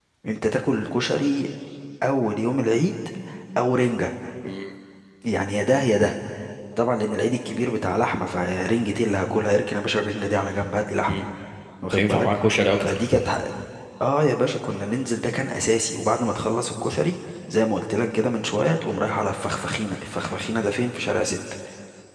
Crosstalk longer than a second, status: none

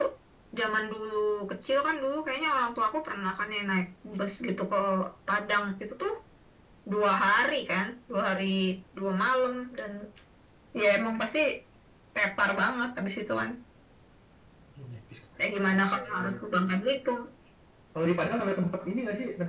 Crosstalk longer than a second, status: present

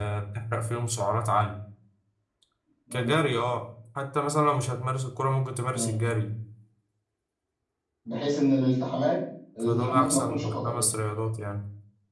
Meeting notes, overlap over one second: present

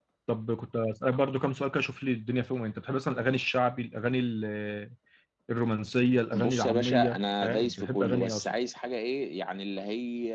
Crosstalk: present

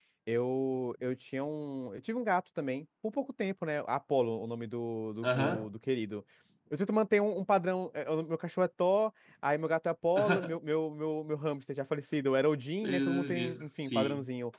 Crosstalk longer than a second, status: present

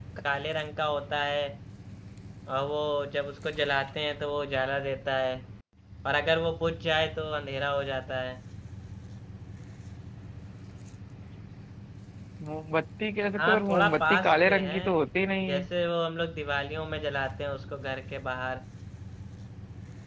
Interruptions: present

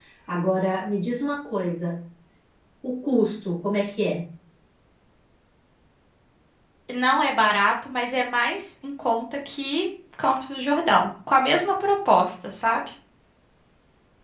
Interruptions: none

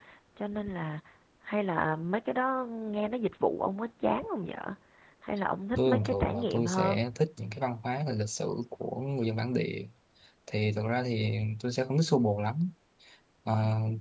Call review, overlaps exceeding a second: present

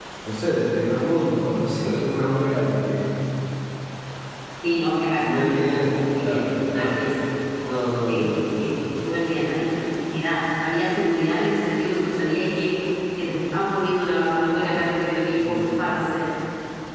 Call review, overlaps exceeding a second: present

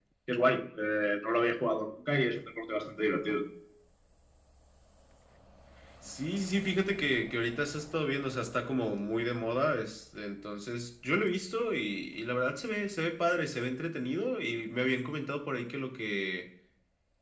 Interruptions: none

